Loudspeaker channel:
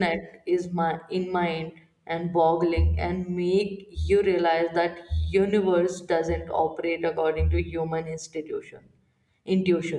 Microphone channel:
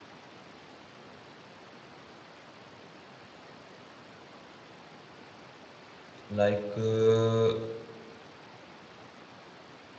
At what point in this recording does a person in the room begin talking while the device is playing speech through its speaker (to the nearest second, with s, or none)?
6 s